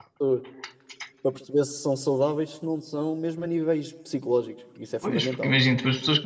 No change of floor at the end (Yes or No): No